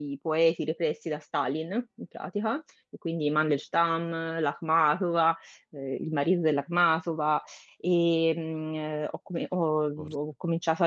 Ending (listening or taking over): listening